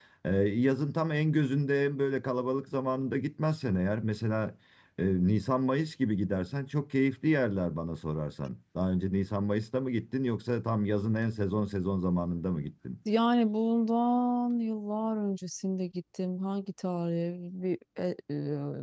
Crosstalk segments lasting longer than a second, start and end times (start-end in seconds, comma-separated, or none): none